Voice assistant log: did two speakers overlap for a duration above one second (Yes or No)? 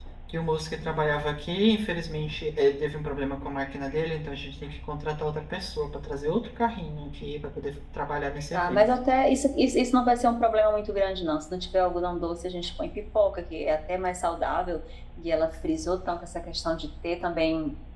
No